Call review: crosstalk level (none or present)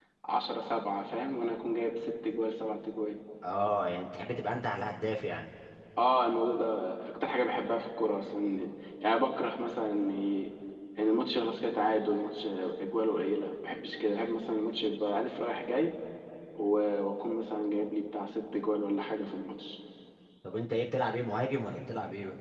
none